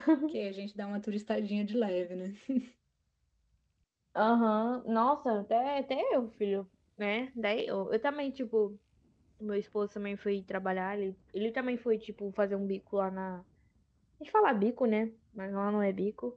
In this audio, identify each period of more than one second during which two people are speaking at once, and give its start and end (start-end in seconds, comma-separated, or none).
none